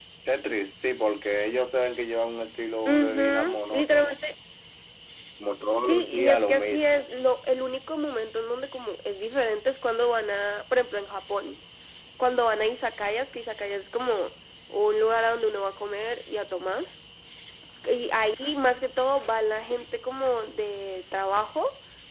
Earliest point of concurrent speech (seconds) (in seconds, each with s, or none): 2.9 s